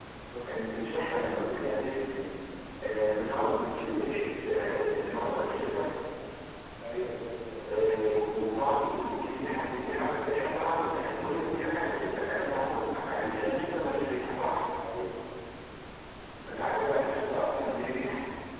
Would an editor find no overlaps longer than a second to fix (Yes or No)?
Yes